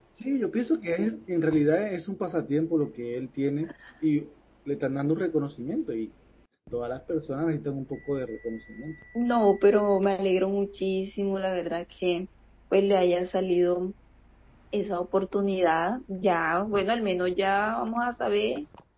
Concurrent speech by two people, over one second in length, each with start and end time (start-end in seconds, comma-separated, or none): none